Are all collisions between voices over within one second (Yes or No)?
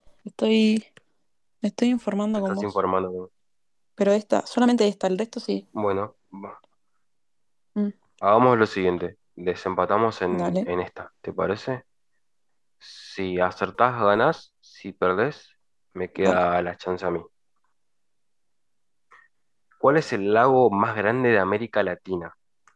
Yes